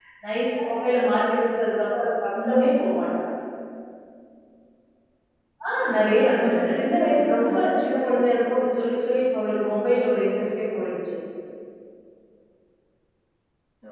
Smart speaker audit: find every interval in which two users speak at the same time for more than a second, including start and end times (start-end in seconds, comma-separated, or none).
5.9-7.5